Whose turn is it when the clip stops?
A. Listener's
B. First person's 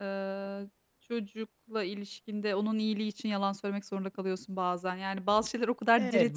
A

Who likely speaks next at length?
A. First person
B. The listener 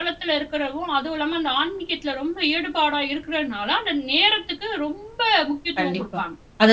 B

